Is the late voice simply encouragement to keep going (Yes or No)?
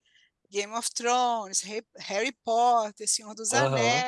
Yes